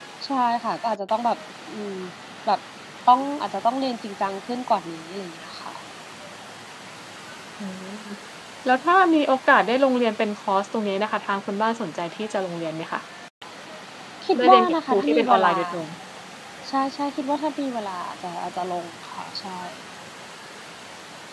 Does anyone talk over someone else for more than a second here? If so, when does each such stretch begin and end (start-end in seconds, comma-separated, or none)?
14.3-15.6